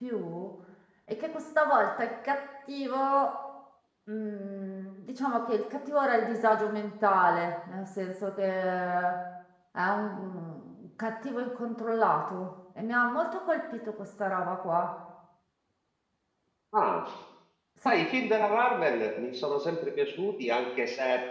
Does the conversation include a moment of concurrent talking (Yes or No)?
No